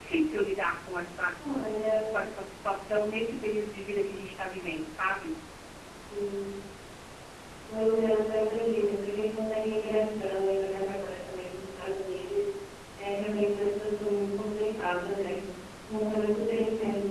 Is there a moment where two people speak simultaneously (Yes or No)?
No